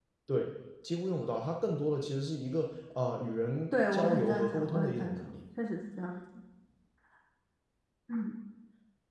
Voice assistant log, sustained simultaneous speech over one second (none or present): present